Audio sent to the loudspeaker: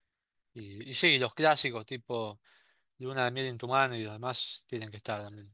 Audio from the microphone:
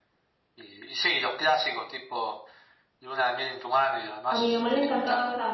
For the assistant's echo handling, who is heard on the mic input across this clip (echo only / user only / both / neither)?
both